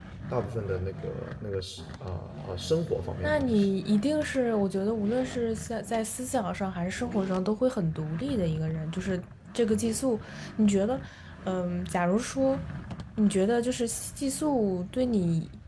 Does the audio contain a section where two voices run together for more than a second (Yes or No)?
No